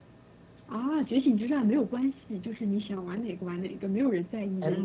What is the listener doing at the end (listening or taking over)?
taking over